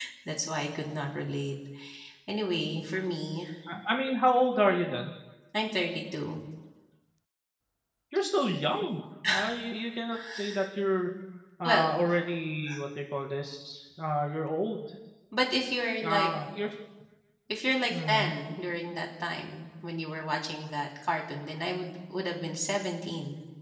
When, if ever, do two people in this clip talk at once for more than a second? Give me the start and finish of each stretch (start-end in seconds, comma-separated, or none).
none